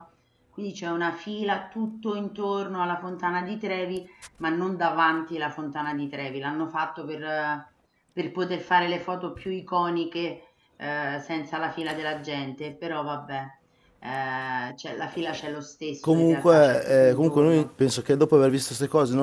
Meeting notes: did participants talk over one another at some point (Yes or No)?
Yes